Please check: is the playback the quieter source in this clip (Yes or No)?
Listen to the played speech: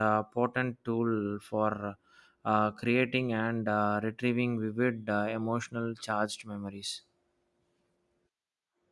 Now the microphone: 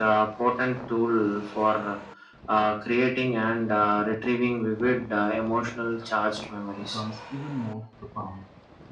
No